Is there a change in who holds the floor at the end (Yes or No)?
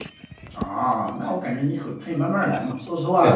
Yes